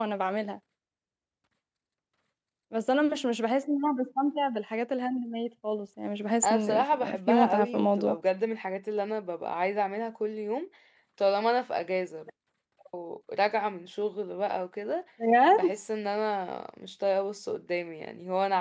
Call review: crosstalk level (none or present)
present